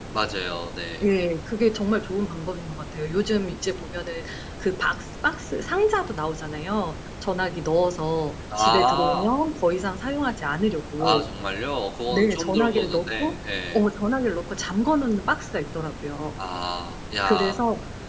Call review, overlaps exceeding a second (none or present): present